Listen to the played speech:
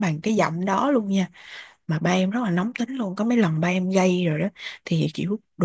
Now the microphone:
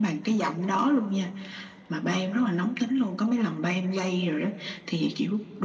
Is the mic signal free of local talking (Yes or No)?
Yes